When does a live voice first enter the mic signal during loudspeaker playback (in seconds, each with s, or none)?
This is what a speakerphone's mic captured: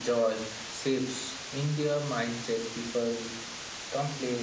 none